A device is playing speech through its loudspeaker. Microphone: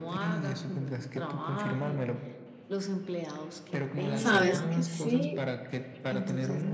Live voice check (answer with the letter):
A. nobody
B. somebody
B